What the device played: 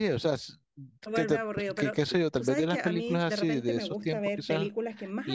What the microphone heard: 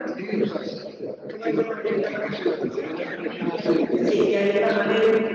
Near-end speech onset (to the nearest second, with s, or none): 4 s